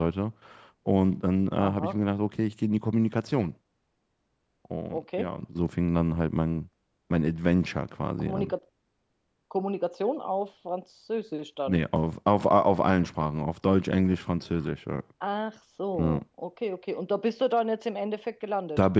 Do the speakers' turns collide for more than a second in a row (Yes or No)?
No